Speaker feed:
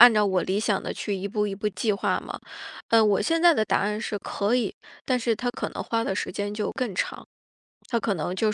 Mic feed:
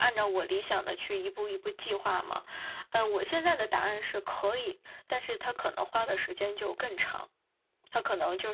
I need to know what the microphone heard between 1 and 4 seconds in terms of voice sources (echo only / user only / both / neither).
echo only